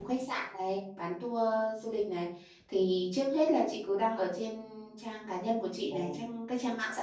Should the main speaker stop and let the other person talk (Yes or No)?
No